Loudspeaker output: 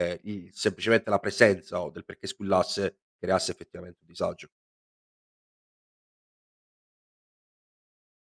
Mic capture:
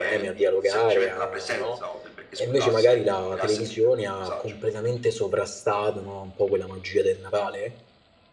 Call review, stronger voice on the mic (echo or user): user